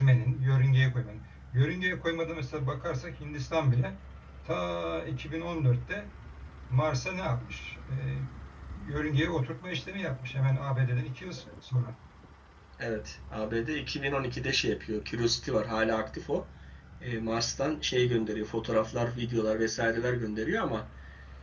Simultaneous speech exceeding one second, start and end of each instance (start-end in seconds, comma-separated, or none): none